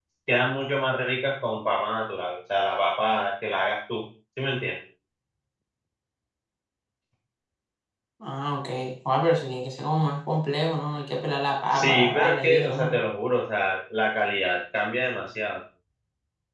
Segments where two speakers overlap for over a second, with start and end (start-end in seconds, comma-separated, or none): 11.7-13.0